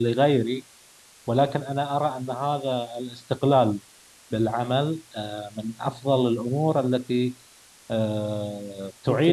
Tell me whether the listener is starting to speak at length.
No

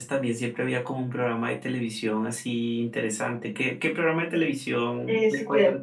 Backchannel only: No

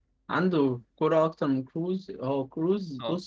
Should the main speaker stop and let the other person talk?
Yes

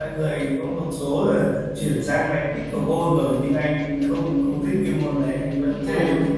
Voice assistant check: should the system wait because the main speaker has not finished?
No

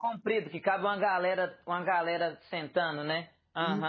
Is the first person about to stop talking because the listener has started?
Yes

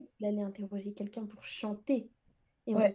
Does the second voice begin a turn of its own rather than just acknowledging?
No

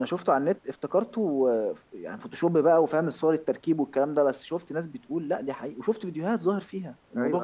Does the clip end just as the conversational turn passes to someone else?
No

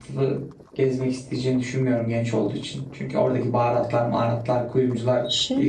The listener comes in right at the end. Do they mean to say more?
Yes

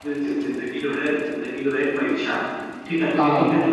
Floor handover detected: No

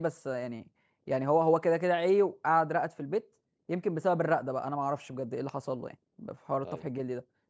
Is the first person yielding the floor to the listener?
No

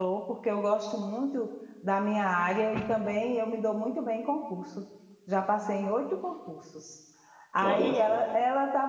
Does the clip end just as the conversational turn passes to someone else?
No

